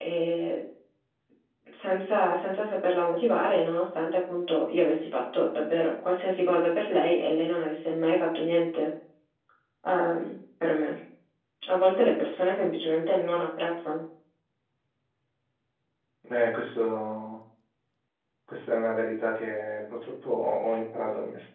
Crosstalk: none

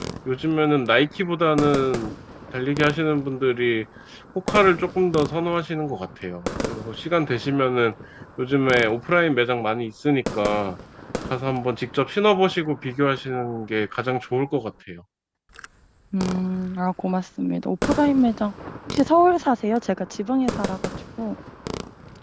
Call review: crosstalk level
none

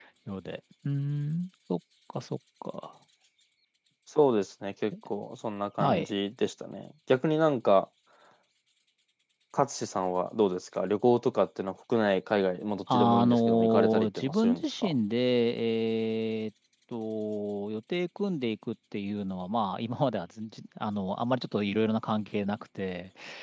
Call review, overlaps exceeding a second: present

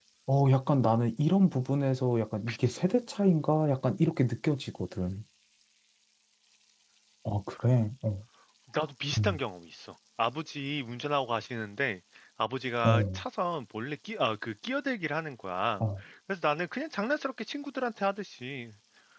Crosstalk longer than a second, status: none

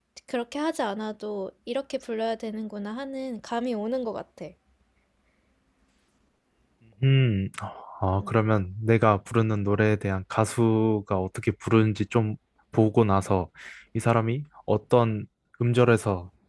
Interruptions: none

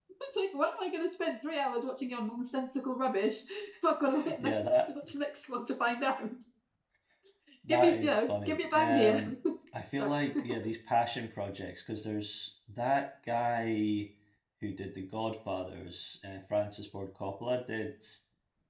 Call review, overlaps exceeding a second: present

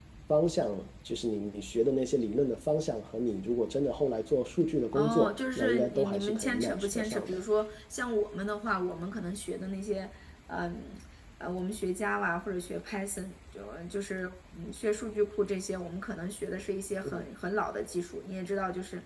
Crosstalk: present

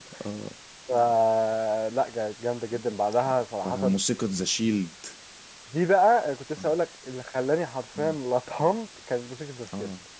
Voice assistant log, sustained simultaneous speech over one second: none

